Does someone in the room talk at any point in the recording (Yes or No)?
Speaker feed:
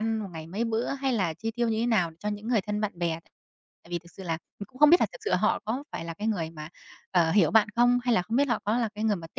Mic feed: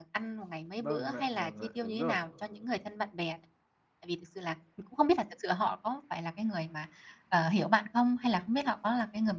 Yes